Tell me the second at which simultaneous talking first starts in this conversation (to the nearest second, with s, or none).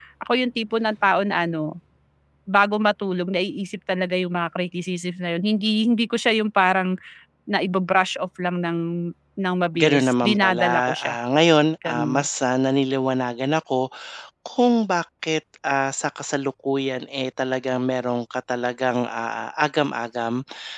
10 s